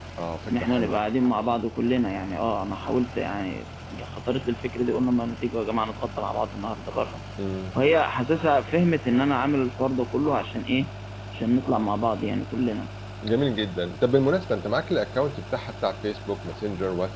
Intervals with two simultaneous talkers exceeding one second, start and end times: none

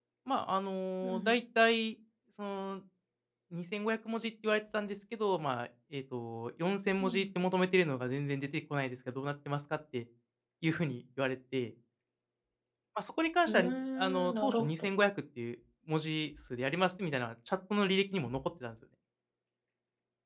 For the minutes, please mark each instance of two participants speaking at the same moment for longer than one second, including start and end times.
13.5-14.7

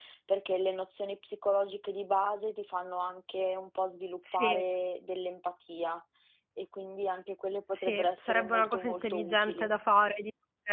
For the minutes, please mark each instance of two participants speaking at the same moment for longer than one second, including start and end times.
7.7-9.7

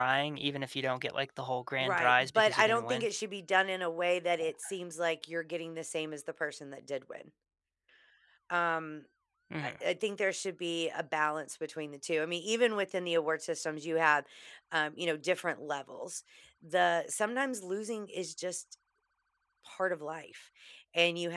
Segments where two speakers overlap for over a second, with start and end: 1.8-3.1

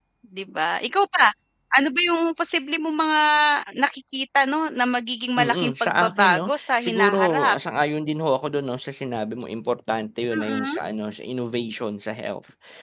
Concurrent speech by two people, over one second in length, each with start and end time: 5.4-7.6

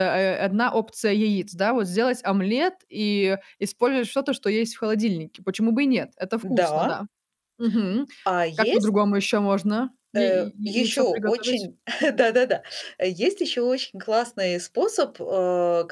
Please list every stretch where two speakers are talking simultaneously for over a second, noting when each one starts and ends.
10.2-11.6

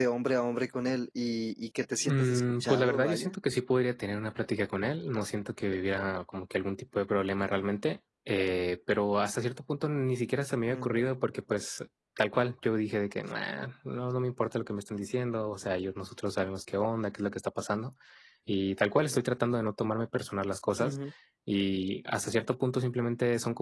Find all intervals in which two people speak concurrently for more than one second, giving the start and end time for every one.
2.1-3.4

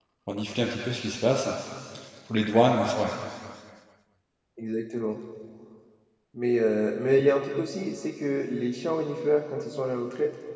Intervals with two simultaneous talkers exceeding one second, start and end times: none

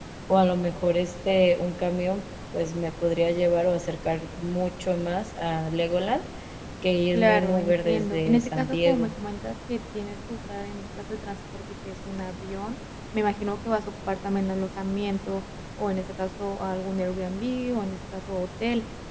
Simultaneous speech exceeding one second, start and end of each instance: 7.1-9.1

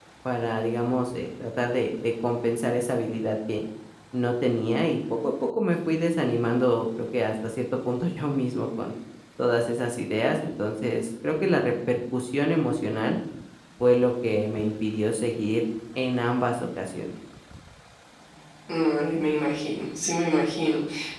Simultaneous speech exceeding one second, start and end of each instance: none

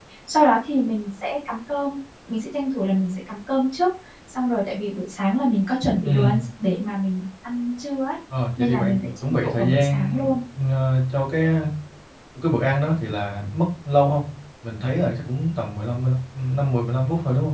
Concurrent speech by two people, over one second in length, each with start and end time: 8.6-10.2

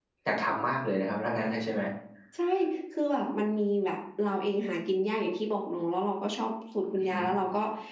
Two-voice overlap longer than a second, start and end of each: none

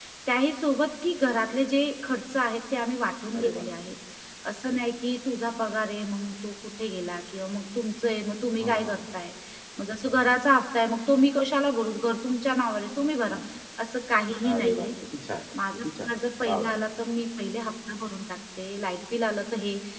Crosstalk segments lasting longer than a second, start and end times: none

